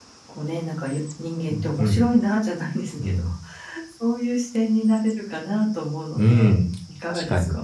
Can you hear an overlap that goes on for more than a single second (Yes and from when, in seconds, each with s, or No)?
No